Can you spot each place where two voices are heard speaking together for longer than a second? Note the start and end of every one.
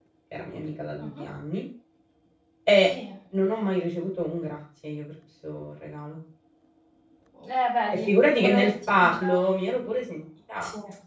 7.9-9.4

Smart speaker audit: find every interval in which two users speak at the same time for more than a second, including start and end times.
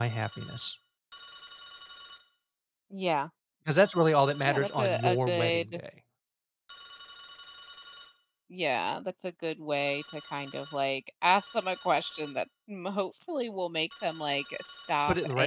4.5-5.8

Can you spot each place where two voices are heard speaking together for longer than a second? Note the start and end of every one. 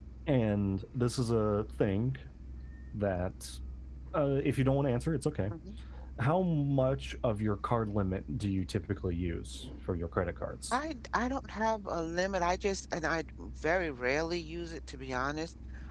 none

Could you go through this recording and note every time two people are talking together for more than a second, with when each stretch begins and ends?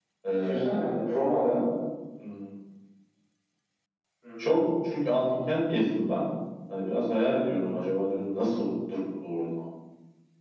none

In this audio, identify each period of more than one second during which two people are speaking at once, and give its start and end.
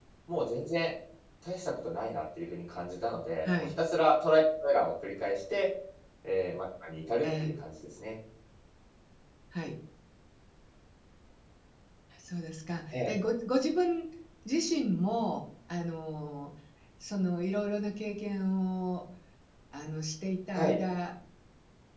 none

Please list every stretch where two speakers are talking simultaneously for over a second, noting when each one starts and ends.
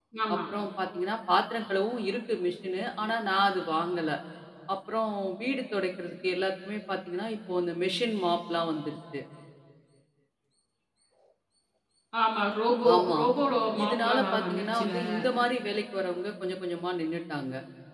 13.8-15.1

